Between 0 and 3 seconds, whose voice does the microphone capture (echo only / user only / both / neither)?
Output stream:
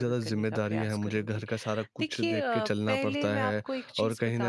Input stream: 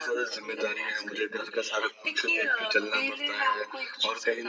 echo only